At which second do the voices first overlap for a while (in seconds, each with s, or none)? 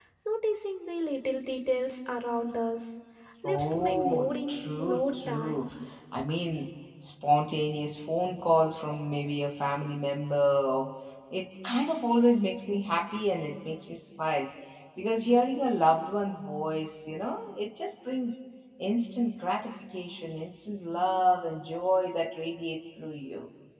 3.5 s